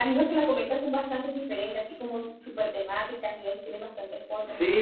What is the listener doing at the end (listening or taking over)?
taking over